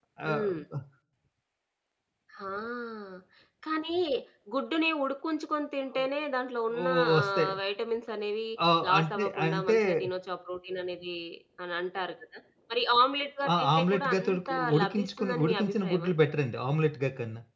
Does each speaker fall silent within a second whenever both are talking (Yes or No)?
No